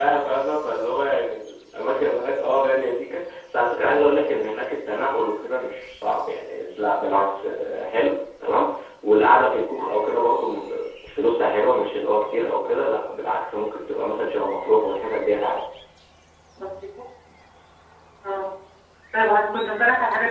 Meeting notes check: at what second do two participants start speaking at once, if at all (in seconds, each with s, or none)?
none